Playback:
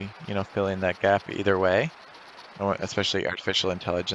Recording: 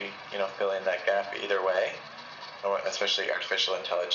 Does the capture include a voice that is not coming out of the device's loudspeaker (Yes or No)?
No